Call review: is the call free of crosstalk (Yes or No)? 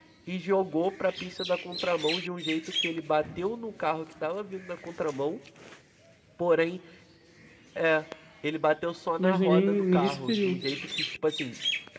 No